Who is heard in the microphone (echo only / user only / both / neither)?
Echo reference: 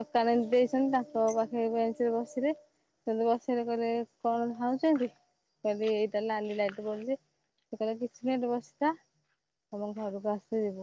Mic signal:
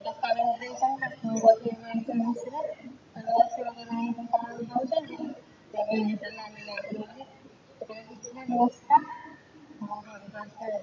echo only